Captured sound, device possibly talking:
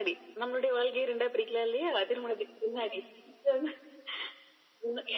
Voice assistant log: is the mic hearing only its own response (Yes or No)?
Yes